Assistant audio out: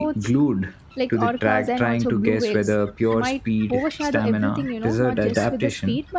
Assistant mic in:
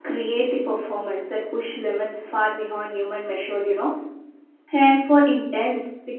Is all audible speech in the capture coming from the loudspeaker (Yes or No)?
No